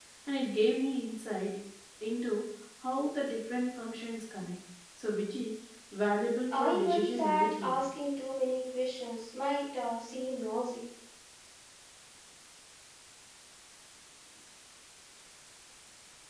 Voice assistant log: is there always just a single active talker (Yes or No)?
No